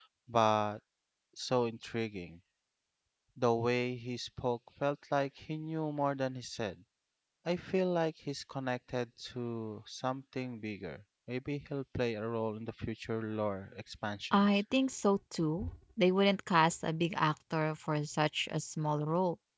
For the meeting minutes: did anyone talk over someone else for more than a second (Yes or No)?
No